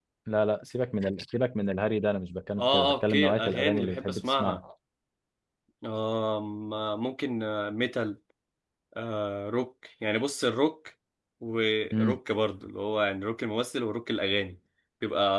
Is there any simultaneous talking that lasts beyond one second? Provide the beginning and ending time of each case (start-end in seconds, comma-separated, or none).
2.6-4.6